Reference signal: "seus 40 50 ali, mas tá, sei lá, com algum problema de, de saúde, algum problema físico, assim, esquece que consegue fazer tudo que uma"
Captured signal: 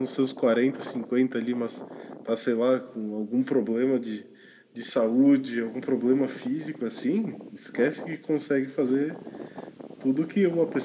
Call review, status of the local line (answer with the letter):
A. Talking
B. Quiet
B